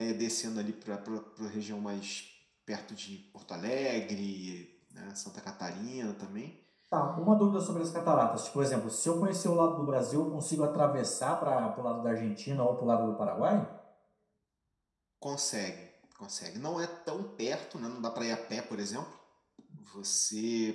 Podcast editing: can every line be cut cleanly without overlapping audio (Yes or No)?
Yes